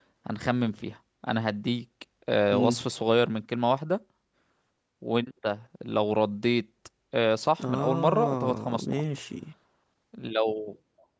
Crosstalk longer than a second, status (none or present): present